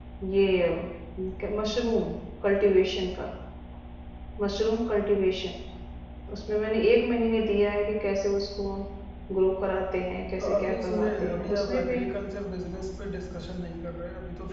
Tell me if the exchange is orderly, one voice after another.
No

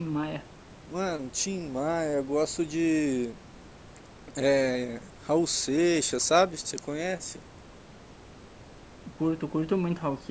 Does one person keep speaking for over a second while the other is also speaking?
No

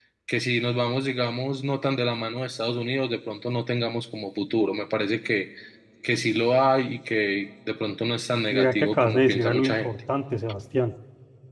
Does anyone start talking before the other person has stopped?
Yes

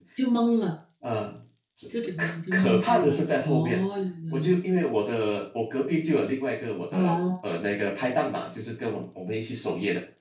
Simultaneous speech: Yes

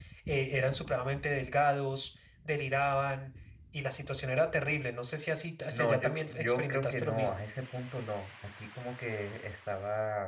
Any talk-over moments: Yes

